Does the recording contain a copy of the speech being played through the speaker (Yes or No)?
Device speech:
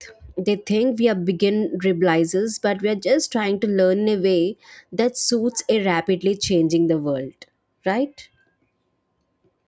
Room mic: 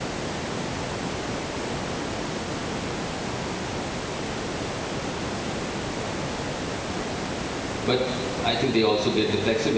No